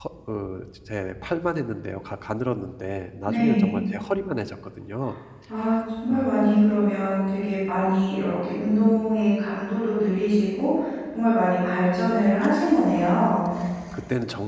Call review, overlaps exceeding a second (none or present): none